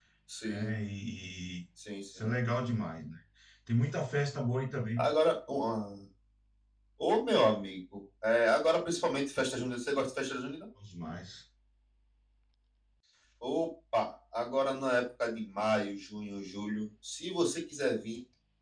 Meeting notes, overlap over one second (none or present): none